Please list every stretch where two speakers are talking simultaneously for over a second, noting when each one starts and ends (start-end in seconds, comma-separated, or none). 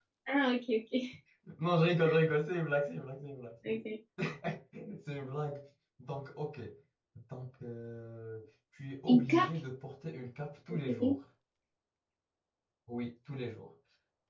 none